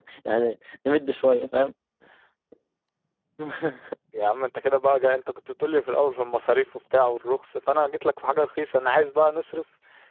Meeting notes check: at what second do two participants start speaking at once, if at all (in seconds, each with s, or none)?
none